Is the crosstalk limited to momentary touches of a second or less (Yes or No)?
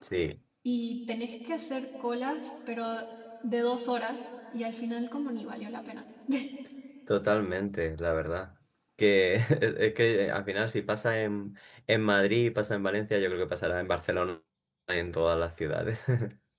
Yes